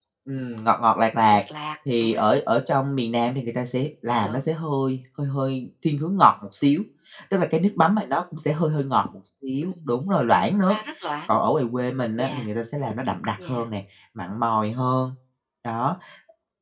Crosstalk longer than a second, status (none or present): none